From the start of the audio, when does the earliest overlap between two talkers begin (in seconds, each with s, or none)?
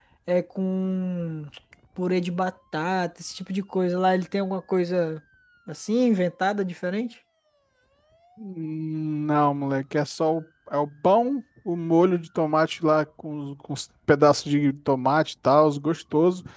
none